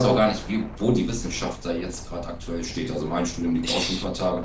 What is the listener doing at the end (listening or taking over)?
listening